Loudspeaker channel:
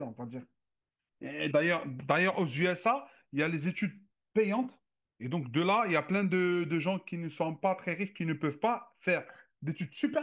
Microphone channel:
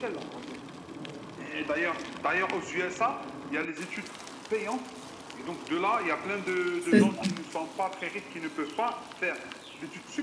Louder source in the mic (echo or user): user